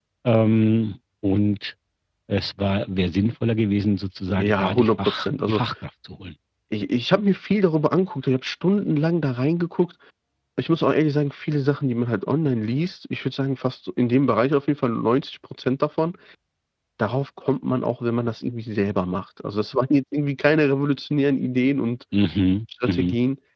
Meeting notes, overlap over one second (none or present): present